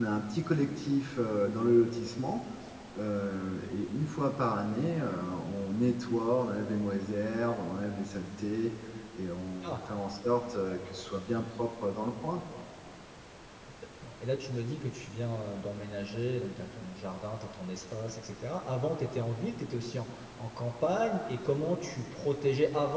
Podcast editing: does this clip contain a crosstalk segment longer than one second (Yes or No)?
No